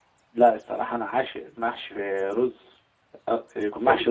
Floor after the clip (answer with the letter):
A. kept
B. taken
A